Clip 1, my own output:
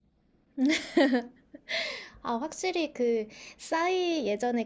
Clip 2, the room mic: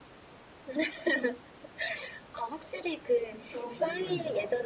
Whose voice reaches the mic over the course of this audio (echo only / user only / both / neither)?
both